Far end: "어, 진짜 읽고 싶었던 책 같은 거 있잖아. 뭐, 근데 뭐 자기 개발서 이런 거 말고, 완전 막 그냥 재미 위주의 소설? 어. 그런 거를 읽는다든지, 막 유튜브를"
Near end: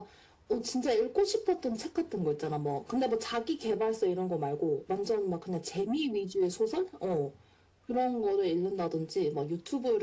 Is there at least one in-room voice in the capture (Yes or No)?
No